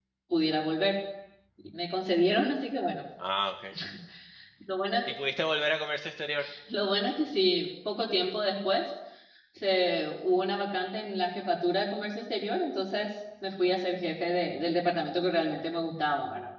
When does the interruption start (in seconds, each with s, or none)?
none